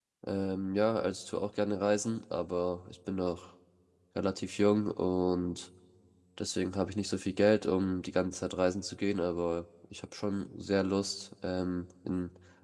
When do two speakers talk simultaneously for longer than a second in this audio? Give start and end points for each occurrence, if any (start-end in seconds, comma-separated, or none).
none